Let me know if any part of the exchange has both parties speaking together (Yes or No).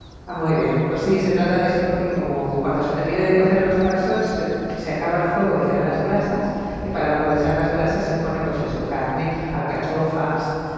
No